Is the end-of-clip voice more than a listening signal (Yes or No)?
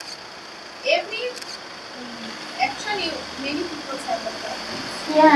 Yes